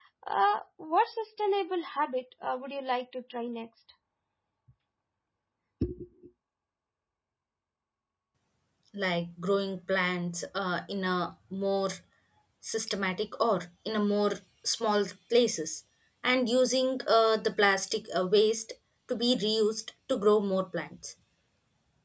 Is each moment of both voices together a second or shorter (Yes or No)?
Yes